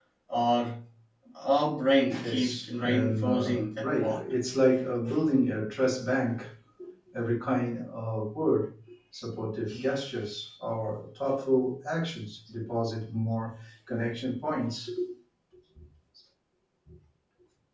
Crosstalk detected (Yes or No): Yes